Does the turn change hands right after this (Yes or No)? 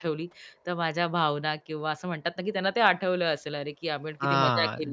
Yes